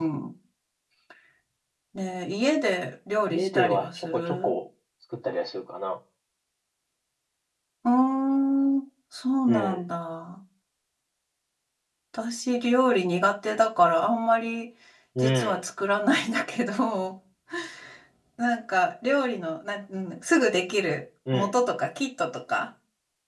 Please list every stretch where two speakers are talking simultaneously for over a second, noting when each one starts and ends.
3.3-4.5

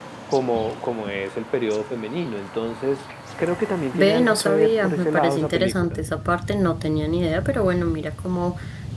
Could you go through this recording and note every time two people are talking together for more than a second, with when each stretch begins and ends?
3.9-6.0

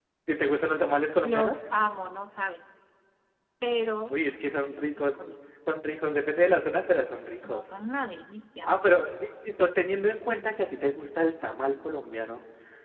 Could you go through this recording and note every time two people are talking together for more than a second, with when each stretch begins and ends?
none

